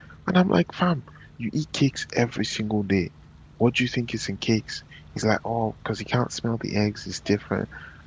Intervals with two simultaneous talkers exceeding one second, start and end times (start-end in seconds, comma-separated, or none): none